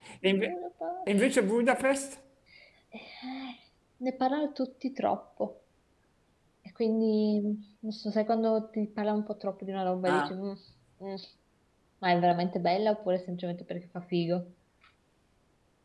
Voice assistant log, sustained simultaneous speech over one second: none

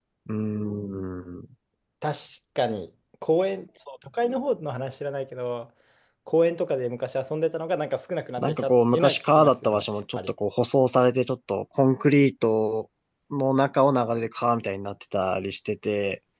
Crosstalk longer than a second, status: present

